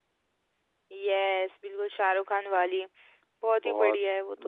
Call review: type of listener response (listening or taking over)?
taking over